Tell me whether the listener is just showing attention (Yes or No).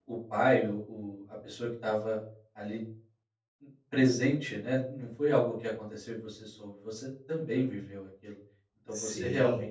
Yes